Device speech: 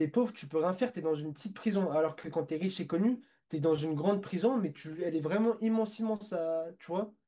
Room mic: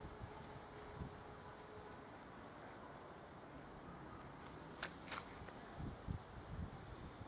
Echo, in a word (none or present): none